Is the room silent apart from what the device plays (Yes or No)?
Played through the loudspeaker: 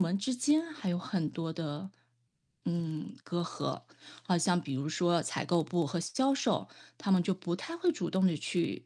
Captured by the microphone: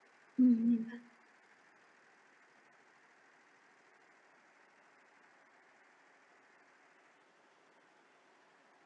No